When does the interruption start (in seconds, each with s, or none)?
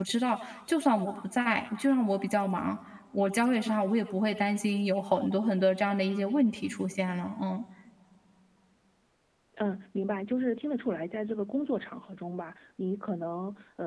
none